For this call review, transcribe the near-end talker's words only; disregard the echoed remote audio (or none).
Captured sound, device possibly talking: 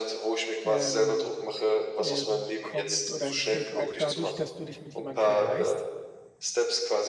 ähm, äh, kommt oder entsteht auch dadurch, dass du dich mit jemandem vergleichst.